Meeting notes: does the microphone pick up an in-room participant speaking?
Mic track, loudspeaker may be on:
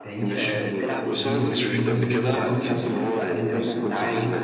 Yes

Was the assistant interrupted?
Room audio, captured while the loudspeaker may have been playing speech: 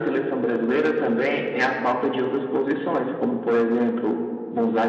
No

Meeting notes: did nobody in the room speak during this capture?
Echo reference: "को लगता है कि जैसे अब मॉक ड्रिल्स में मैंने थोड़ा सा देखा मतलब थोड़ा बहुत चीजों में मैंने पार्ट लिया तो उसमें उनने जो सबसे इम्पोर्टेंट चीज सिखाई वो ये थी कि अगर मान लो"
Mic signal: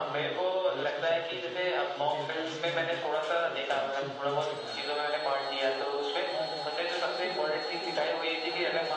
No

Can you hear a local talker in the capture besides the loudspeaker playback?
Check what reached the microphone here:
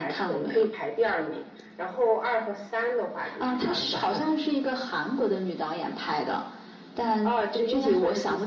No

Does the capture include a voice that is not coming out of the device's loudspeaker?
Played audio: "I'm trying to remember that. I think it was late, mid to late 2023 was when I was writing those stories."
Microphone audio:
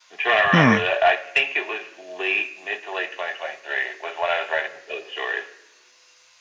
Yes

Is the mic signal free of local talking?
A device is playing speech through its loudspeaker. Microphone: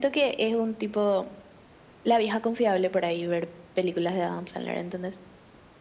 Yes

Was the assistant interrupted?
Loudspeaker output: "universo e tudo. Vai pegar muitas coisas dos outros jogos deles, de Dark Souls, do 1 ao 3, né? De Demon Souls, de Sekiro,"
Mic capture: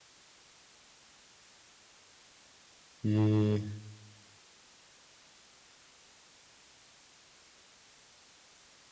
Yes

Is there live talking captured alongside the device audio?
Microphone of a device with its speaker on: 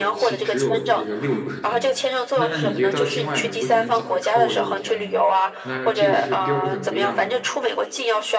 Yes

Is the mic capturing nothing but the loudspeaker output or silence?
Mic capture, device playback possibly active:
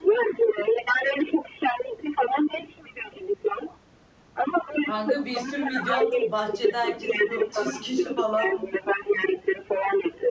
No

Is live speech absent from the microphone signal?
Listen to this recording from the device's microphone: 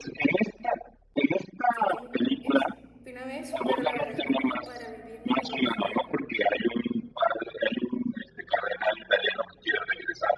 No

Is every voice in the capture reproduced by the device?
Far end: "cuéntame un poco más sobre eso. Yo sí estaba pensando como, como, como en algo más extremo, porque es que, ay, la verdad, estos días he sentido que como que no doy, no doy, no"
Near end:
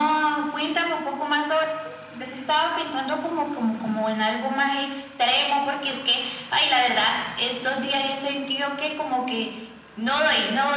Yes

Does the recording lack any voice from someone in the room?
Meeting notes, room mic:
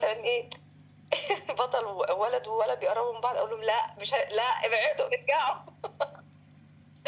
Yes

